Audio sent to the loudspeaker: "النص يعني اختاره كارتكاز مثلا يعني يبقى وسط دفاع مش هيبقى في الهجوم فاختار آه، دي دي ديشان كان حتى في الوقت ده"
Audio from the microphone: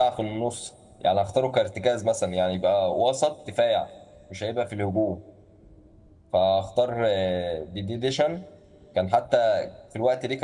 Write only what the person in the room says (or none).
none